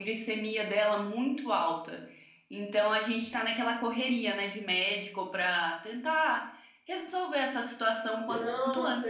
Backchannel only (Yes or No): No